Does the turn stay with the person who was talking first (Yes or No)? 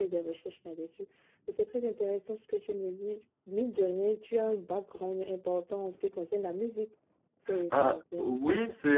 No